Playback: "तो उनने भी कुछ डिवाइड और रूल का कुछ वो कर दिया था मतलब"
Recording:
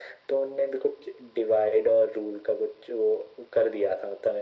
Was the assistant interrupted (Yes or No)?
No